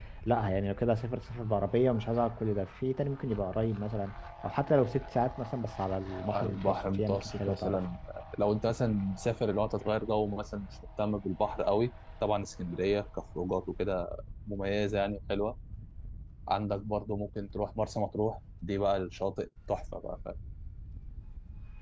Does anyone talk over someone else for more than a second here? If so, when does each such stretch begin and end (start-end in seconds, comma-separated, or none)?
6.3-7.8